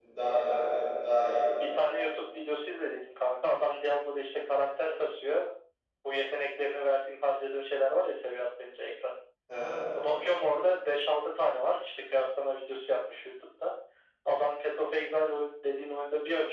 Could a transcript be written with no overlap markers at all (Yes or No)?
Yes